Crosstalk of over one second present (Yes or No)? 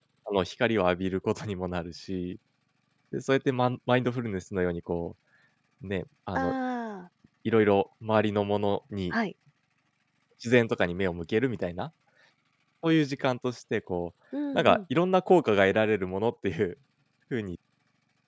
No